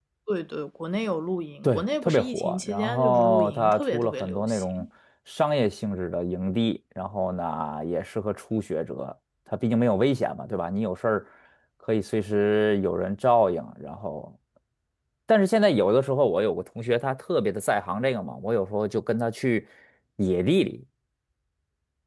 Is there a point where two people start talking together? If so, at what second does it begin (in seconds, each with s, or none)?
1.6 s